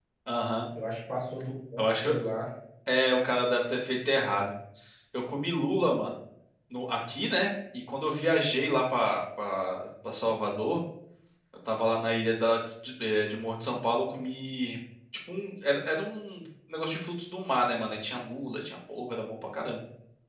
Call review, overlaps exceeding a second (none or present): none